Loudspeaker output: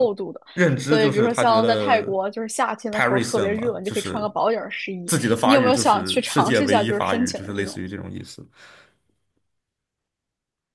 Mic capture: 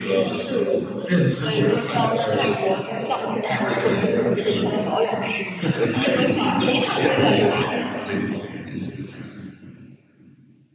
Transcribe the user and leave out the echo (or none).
none